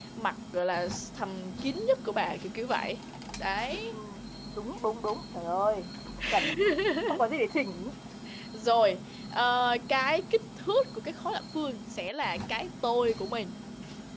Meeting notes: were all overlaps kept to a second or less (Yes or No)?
Yes